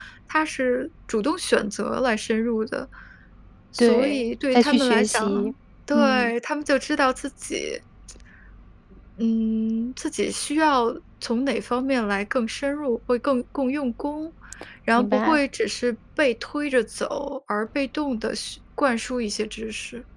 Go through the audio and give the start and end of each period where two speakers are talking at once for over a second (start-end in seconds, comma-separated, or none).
3.8-5.5